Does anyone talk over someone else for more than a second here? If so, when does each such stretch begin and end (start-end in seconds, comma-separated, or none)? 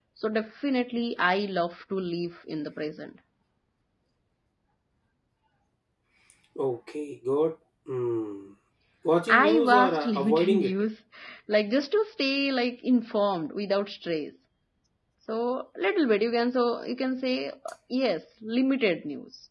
9.3-10.7